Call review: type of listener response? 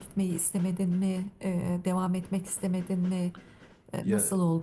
taking over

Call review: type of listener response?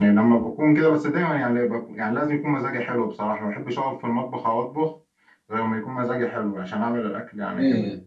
taking over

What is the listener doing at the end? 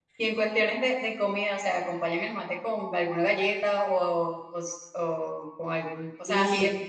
listening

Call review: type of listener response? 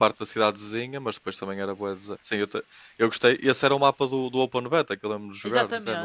taking over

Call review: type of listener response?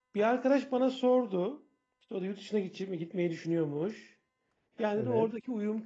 listening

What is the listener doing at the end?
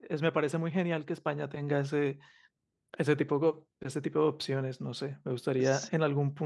listening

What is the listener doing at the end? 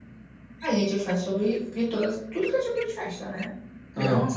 listening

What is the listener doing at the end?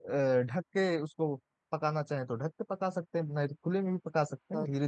listening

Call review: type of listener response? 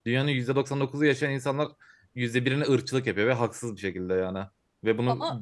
listening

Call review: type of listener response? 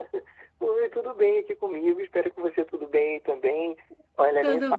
listening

